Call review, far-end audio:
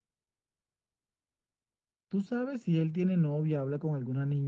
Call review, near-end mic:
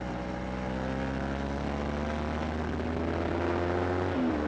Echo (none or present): none